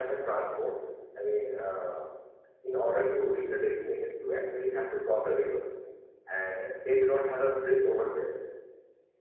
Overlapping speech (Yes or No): No